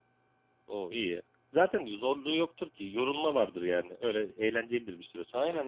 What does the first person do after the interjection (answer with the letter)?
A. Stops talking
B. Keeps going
A